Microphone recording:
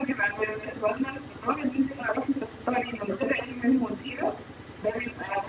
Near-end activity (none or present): none